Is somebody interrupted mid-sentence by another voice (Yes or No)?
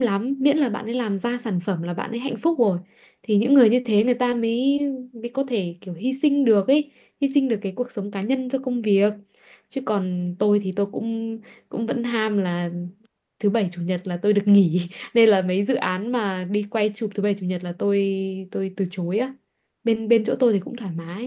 No